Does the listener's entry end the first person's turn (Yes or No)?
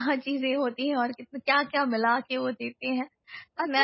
Yes